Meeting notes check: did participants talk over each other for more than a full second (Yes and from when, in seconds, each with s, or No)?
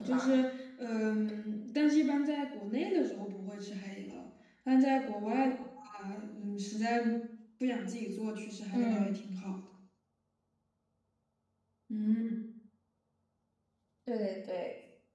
No